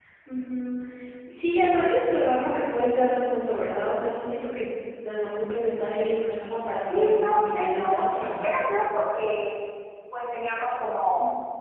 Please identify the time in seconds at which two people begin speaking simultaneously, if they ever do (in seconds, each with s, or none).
6.8 s